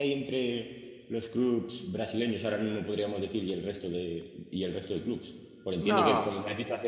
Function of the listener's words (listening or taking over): listening